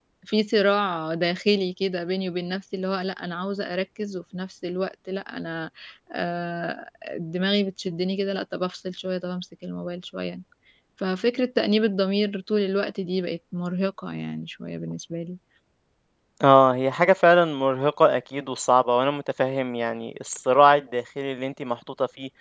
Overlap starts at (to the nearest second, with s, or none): none